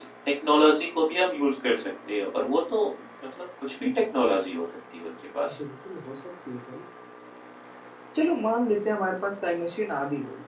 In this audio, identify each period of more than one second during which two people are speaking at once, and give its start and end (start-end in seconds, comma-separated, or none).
none